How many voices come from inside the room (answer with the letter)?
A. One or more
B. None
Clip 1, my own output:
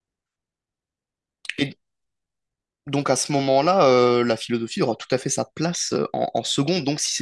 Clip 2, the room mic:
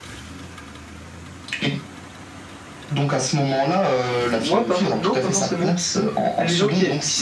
A